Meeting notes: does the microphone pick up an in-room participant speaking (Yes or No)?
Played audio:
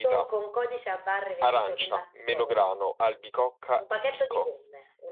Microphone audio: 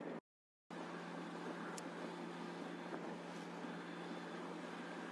No